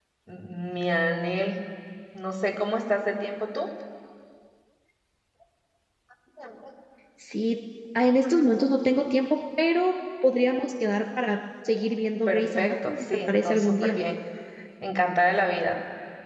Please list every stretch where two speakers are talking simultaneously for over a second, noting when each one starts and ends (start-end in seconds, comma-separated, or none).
12.2-14.0